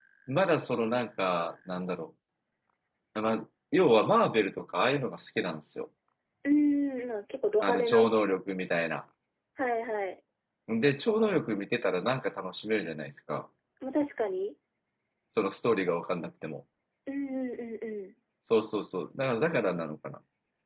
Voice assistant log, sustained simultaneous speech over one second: none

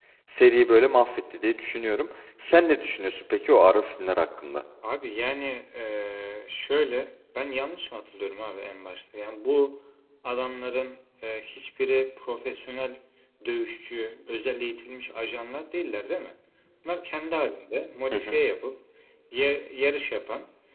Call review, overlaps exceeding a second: none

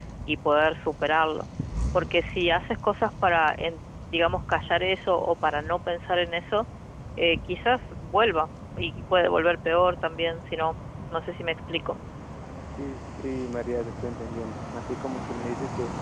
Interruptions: none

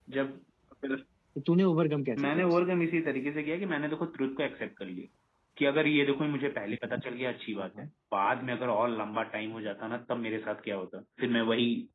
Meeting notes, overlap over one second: none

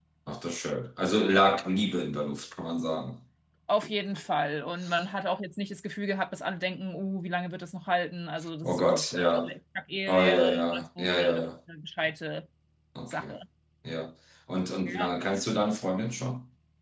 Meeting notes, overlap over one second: present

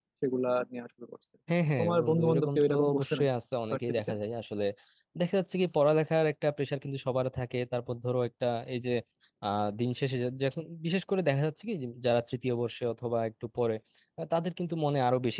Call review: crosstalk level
present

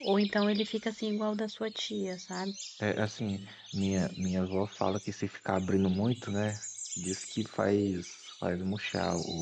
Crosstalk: none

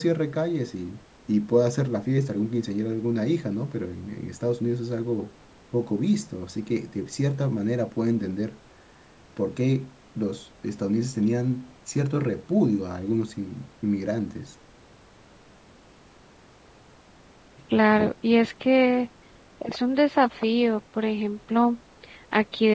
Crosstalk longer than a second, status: none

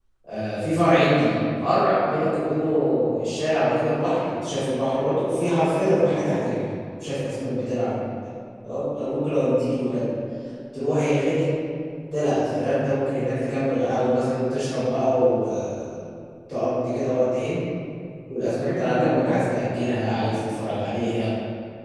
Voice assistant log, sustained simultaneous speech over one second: present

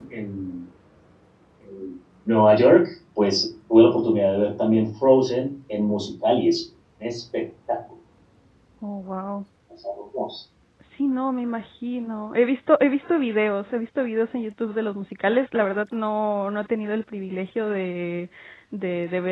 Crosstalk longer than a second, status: none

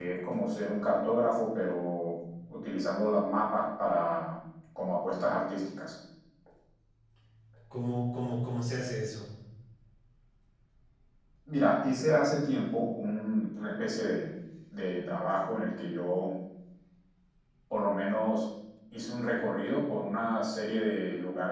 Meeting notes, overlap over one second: none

